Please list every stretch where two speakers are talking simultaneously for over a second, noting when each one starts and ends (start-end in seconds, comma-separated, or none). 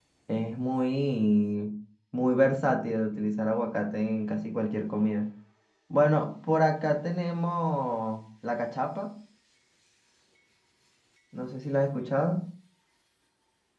none